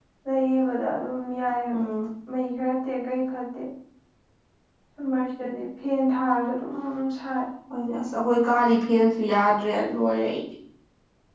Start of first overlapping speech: none

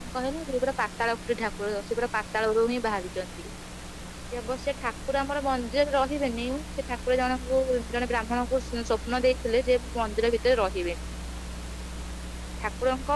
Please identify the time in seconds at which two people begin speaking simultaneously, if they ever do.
none

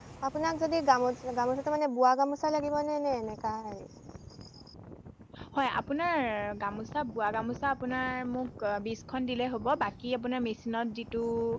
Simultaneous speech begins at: none

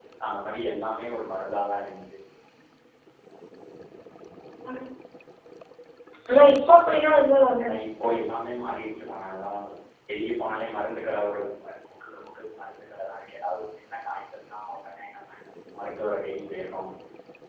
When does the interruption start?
none

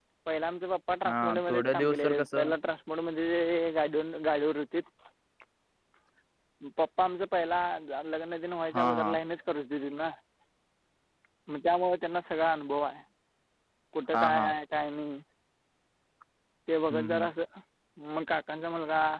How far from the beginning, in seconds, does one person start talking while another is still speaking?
1 s

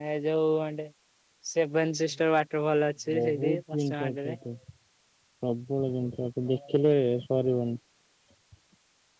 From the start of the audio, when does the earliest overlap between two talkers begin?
3 s

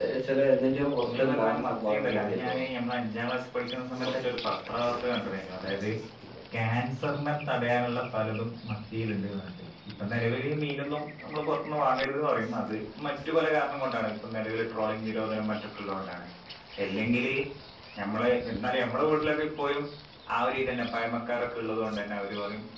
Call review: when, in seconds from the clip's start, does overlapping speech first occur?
1 s

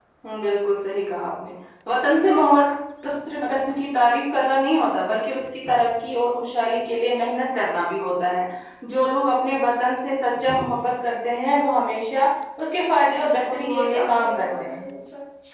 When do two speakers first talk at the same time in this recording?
13 s

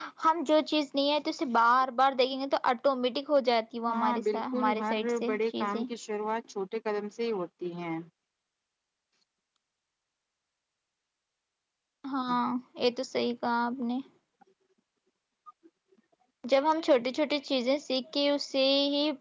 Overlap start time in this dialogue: 4 s

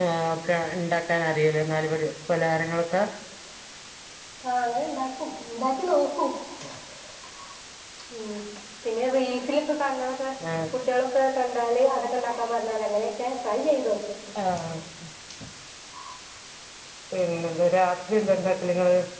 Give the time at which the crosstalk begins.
none

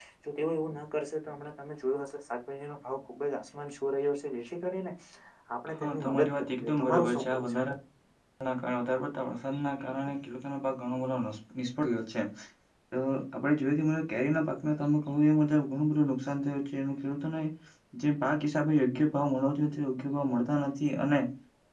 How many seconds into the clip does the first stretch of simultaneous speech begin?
6 s

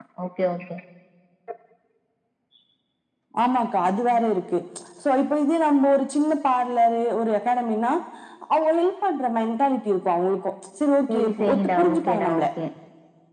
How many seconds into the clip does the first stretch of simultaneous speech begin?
11 s

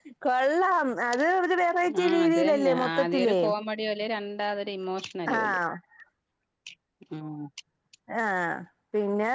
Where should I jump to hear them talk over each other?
2 s

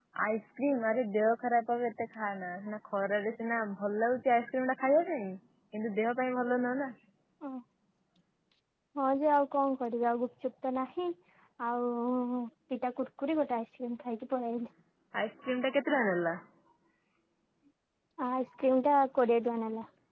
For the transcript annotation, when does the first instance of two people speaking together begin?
none

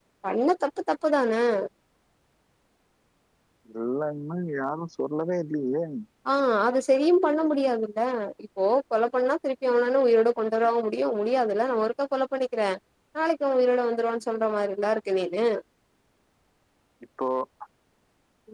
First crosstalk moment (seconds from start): none

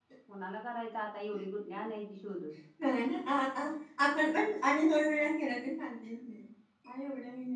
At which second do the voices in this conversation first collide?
none

